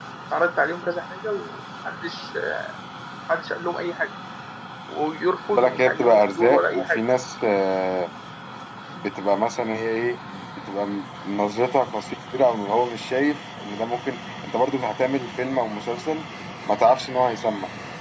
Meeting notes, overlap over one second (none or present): present